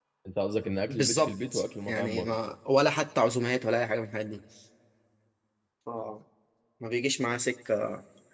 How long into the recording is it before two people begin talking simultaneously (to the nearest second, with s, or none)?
1 s